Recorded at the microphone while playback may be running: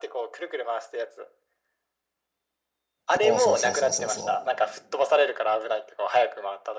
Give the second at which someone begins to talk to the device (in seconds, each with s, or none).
3.1 s